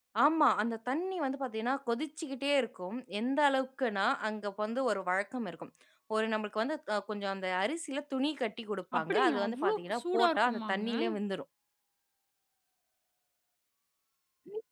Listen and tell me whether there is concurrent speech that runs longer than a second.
Yes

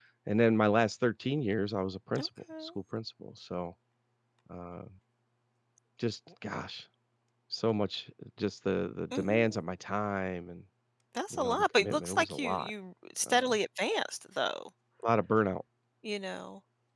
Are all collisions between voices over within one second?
No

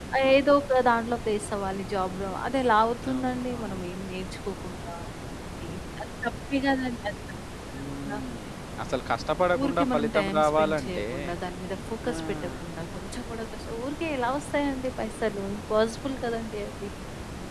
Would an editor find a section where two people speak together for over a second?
Yes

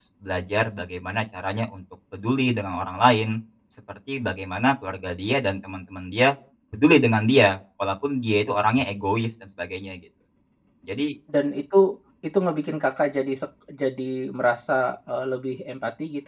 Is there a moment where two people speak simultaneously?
No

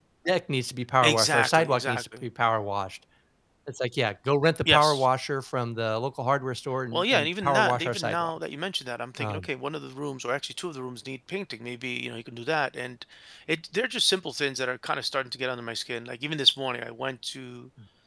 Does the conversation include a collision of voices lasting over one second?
Yes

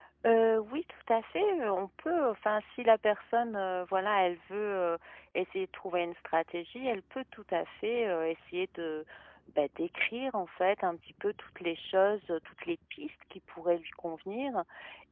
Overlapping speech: No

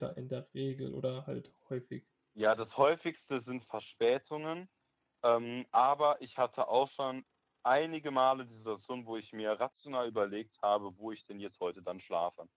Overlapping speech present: No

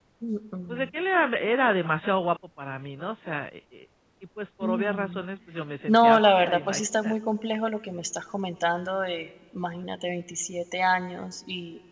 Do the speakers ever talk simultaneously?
Yes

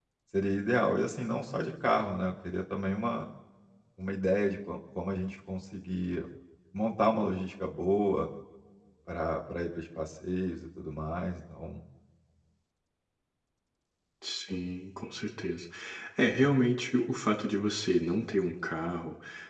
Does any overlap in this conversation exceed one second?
No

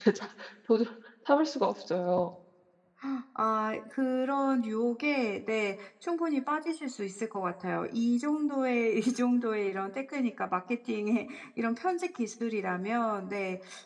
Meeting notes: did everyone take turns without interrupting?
Yes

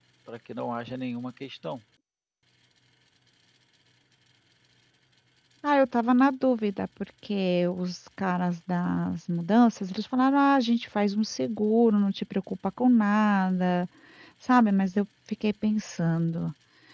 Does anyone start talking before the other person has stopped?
No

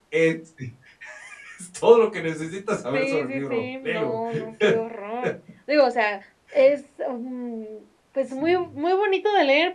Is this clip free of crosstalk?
No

